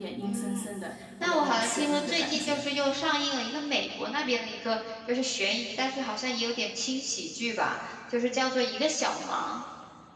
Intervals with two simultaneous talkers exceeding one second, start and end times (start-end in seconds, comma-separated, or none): 1.2-2.6